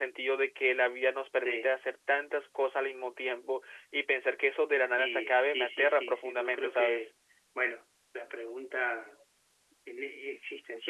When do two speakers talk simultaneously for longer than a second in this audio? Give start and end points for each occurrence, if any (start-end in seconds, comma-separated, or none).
4.7-7.1